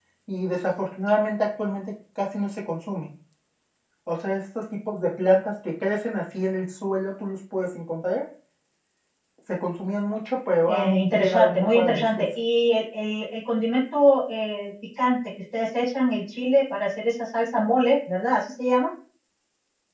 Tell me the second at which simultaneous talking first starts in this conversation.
10.7 s

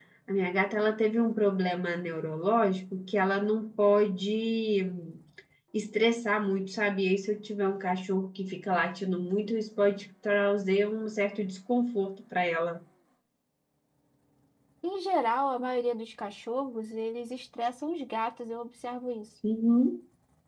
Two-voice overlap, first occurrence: none

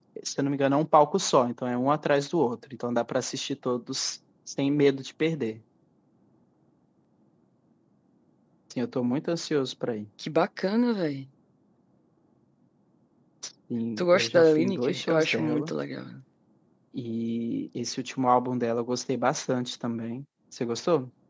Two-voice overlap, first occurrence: 14.0 s

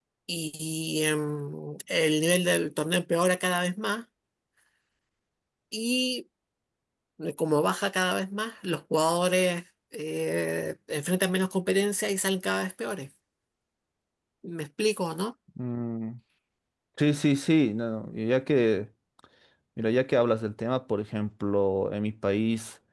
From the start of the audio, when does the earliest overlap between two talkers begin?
none

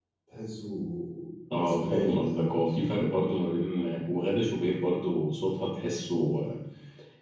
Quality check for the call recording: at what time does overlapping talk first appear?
1.6 s

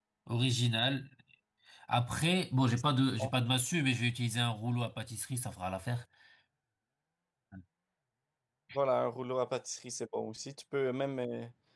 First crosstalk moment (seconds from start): none

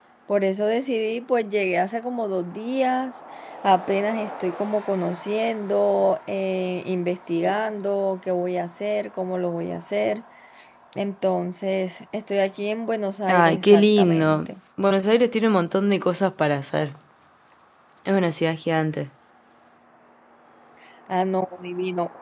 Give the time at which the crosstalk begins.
13.3 s

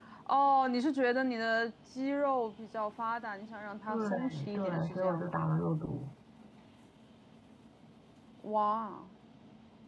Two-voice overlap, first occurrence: 3.9 s

